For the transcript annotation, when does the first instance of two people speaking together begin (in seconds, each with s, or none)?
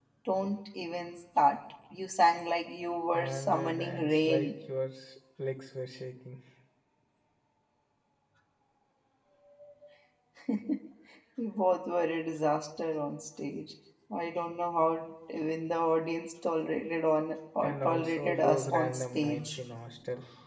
3.1 s